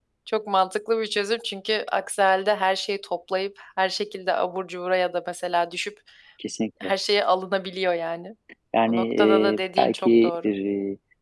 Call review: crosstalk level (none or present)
present